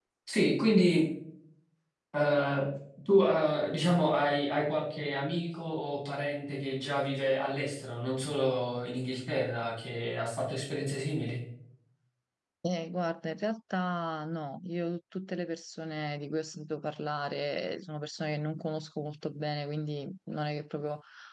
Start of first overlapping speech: none

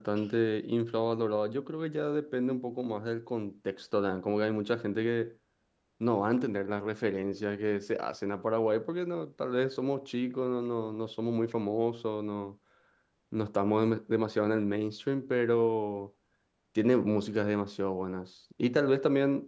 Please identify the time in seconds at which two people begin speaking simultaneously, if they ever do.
none

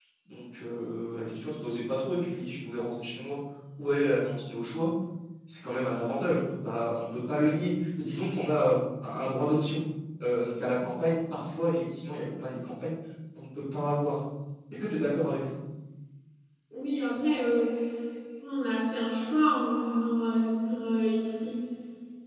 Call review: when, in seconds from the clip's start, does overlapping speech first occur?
none

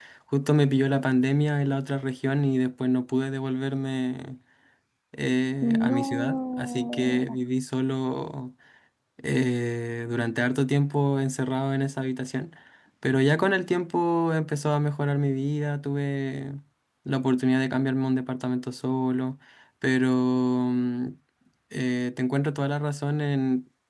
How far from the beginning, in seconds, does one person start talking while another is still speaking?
5.6 s

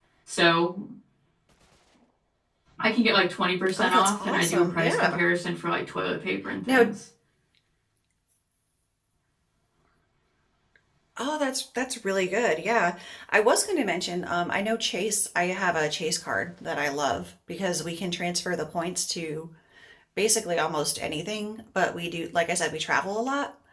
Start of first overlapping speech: 3.7 s

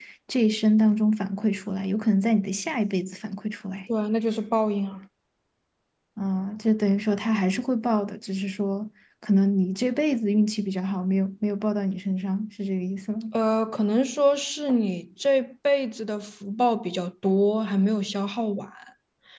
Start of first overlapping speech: none

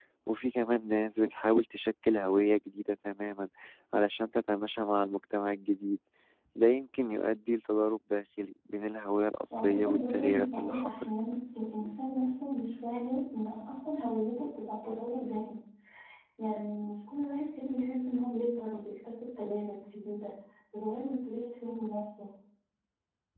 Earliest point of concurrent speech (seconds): 9.5 s

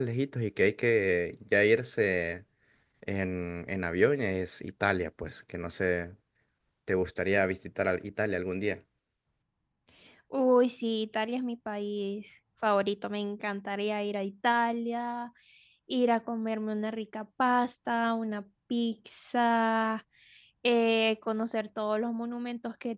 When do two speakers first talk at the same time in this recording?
none

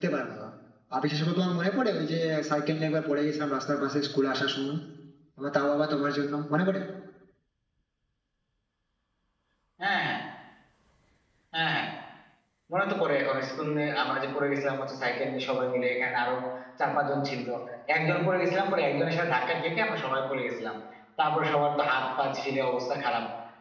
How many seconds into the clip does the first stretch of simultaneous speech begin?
none

